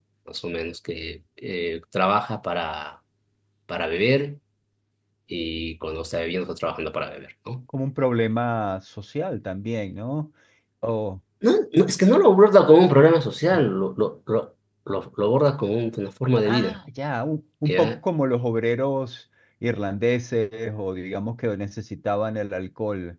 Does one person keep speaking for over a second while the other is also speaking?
No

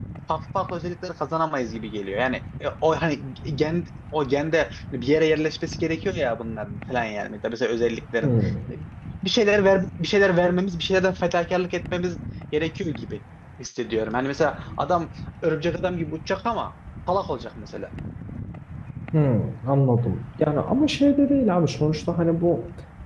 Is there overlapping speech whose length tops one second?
No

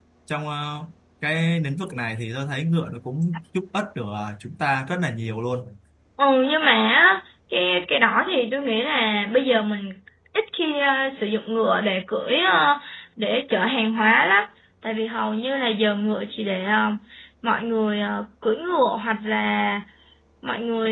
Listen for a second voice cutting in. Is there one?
No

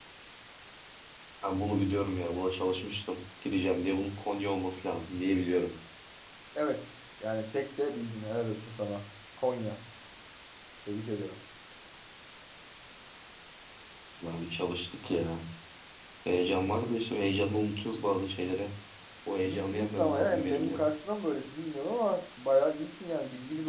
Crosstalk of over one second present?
Yes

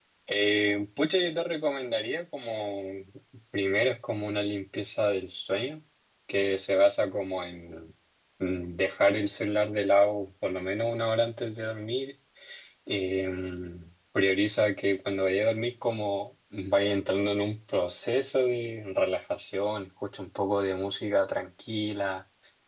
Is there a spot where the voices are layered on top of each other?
No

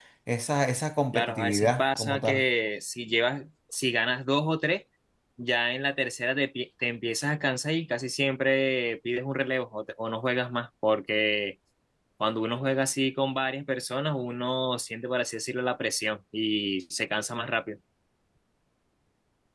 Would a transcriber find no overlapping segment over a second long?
No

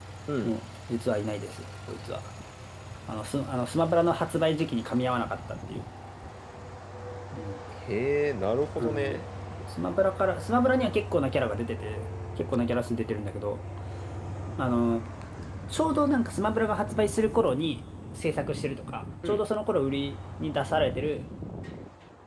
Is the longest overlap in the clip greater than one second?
No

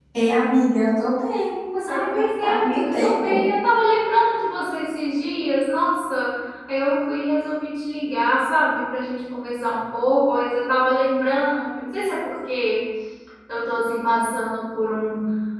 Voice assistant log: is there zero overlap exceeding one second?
No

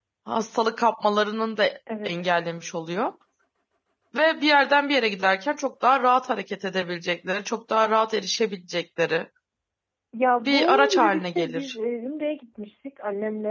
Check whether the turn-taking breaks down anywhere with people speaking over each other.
Yes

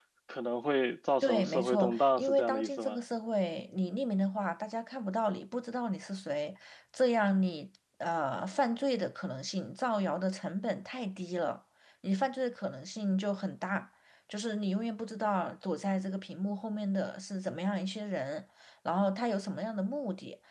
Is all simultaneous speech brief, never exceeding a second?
No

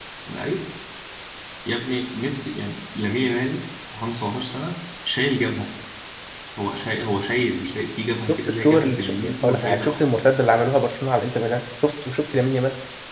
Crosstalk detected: Yes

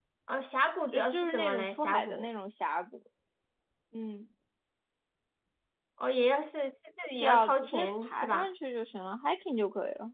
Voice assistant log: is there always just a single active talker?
No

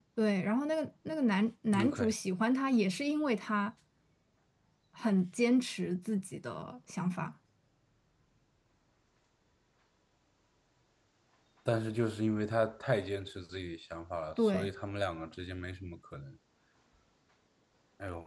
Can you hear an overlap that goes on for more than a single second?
No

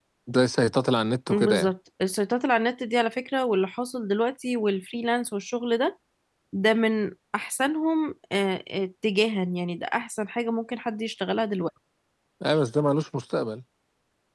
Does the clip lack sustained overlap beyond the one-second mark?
Yes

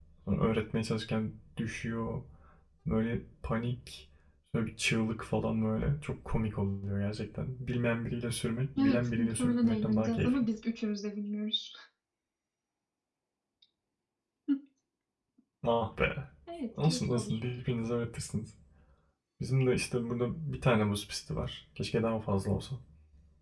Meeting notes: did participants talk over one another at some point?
Yes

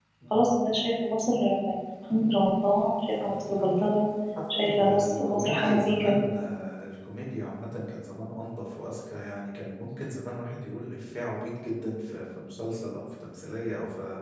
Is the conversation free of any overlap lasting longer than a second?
No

